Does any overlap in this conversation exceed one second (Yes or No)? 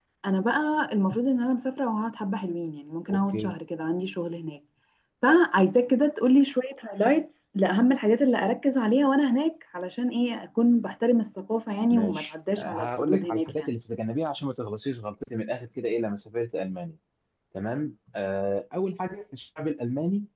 Yes